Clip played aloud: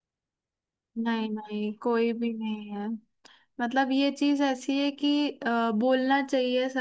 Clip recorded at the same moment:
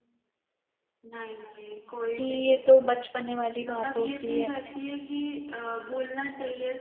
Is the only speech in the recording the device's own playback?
No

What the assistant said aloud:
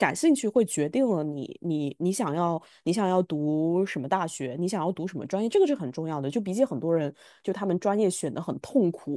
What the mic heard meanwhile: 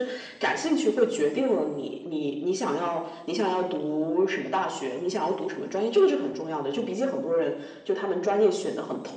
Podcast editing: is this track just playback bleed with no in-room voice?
Yes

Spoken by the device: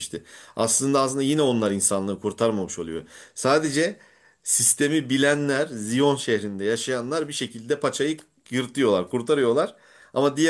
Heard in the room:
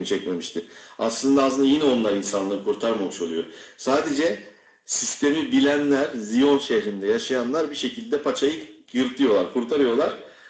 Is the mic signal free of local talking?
Yes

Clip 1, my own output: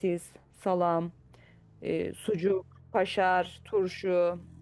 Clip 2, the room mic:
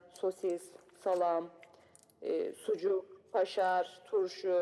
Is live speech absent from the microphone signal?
Yes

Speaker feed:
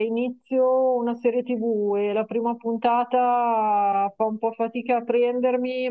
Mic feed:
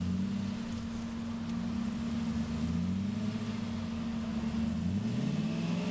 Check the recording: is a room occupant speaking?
No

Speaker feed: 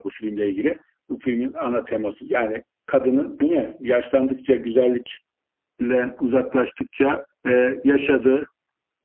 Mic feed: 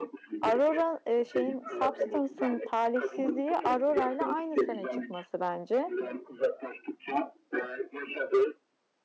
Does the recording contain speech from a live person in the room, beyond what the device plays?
Yes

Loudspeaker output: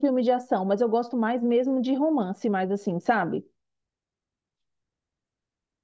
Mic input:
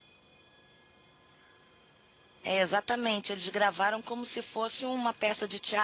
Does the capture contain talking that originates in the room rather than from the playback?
Yes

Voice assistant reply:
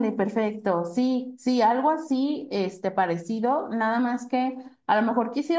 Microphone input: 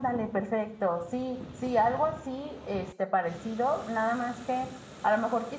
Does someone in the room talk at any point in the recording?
No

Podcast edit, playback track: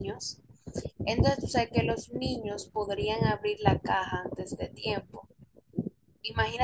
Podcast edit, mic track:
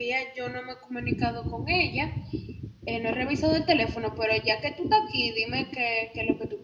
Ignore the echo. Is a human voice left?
Yes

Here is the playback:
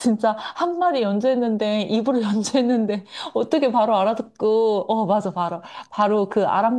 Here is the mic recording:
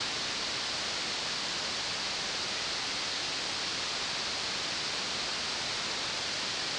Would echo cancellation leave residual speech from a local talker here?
No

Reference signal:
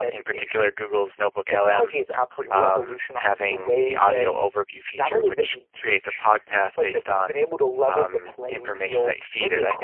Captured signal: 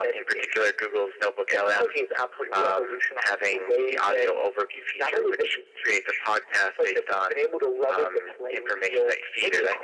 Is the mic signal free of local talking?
Yes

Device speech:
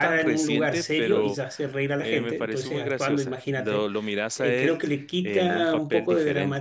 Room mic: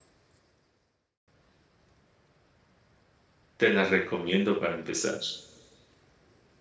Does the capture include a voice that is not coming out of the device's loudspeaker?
Yes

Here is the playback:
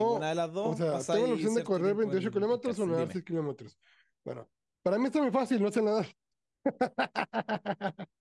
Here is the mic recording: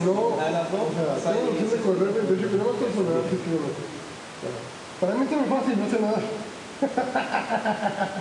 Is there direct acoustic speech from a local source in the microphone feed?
No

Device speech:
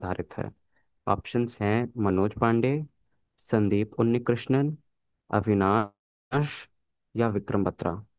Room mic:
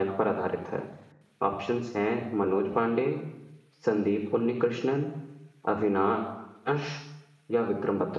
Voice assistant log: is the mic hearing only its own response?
Yes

